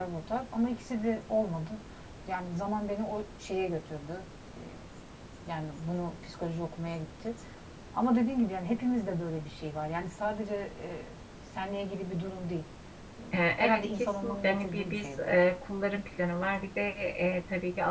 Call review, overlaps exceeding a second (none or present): present